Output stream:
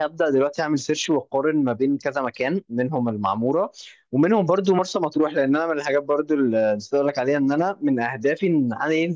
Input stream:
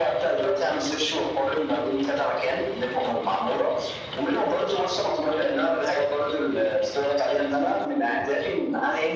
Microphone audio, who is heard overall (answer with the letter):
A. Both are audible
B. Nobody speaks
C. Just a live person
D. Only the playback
D